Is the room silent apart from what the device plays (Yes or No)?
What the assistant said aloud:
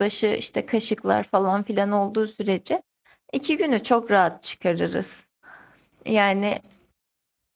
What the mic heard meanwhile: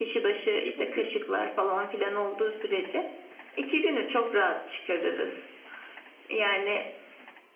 No